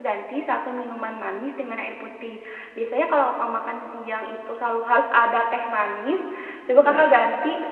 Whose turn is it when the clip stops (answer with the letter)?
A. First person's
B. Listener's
A